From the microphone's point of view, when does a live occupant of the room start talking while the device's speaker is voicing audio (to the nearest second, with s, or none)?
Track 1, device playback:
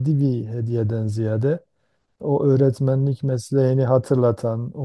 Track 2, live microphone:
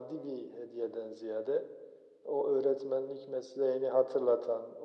none